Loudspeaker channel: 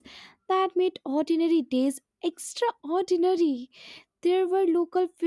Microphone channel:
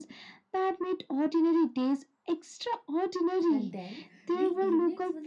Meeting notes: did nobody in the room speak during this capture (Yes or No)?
No